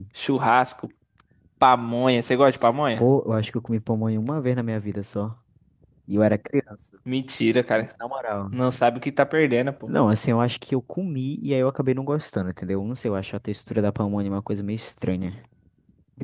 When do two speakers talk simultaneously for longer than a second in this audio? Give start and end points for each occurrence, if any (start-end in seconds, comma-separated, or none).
none